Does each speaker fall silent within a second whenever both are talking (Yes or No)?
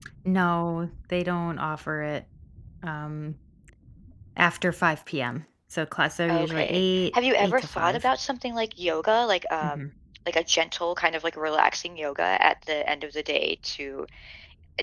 No